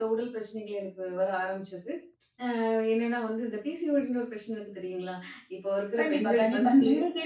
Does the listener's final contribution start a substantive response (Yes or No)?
Yes